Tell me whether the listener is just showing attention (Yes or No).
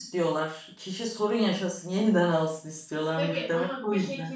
No